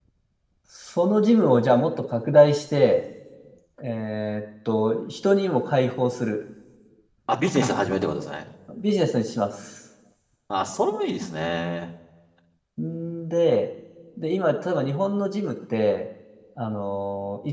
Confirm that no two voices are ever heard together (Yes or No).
Yes